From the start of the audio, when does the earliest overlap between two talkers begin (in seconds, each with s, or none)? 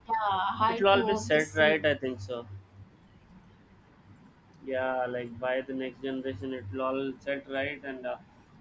0.7 s